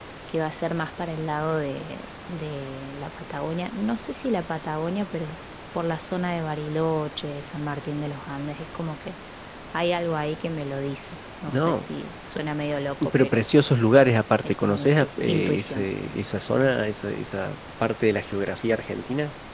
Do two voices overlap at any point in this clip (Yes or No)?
Yes